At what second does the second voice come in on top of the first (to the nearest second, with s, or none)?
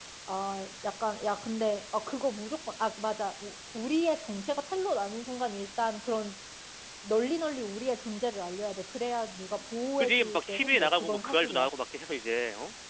10 s